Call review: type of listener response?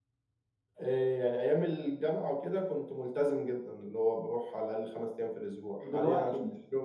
listening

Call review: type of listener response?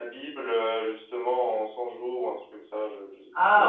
taking over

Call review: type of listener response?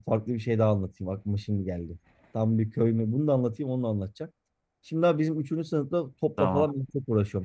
listening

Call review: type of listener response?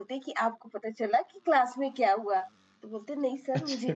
listening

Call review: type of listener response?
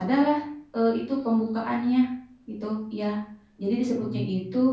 listening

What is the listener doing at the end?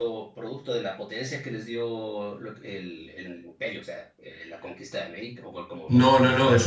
taking over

